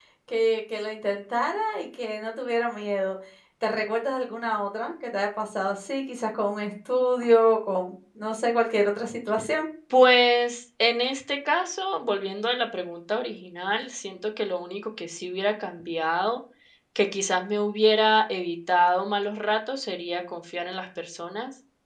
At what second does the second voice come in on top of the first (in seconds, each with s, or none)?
none